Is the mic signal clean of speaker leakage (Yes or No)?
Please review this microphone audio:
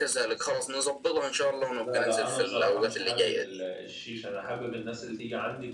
No